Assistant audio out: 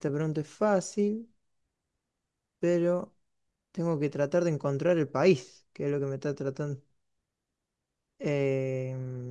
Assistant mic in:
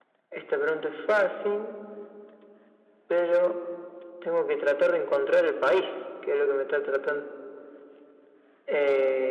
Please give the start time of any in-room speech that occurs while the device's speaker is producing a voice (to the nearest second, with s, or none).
none